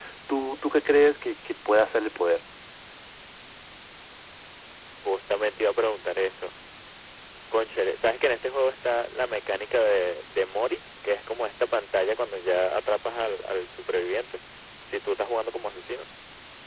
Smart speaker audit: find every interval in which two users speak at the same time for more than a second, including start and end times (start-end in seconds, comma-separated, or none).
none